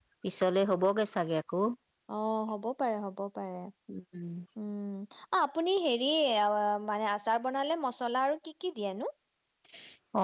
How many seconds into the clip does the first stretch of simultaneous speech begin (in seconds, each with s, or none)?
none